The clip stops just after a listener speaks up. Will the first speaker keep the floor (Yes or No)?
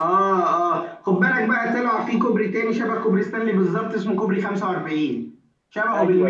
No